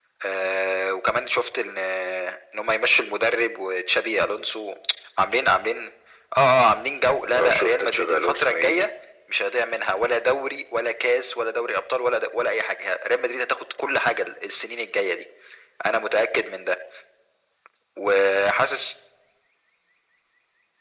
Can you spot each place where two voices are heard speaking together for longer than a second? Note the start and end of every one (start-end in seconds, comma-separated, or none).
7.3-8.9